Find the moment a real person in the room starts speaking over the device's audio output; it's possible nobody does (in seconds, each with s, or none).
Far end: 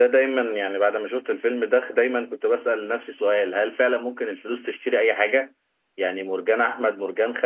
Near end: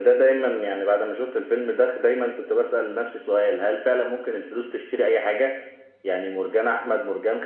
none